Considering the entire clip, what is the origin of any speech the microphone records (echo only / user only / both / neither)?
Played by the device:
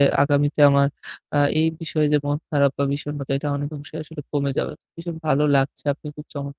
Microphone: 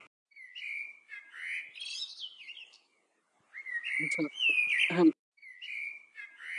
user only